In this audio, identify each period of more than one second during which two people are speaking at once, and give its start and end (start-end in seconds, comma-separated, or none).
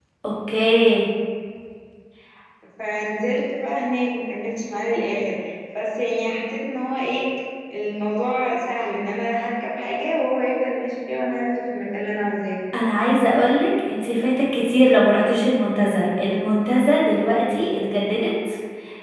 none